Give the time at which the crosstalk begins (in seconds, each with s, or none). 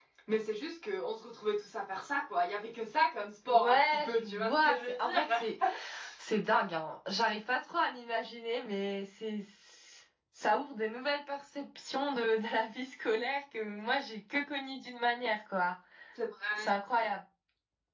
3.5 s